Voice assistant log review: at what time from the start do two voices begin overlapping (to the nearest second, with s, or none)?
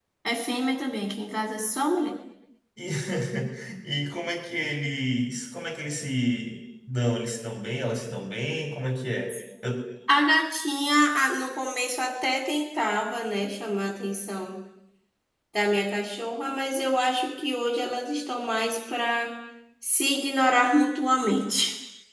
none